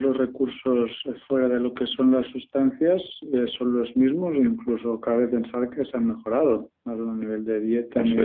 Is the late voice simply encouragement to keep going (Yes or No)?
Yes